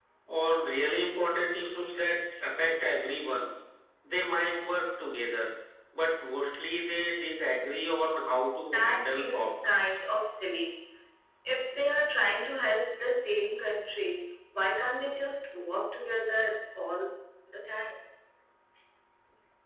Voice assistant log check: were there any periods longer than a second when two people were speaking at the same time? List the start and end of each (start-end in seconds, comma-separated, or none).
8.7-10.0